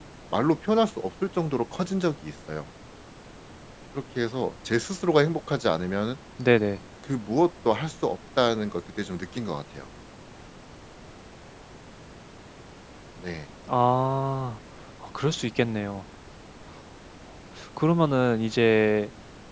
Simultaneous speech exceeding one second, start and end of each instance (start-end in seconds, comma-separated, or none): none